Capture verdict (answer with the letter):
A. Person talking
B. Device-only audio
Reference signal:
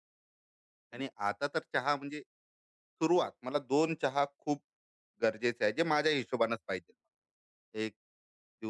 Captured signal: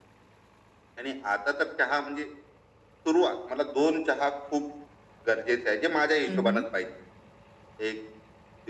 A